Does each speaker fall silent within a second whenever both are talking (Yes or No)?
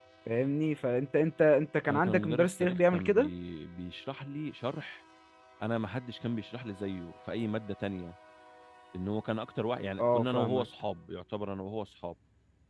No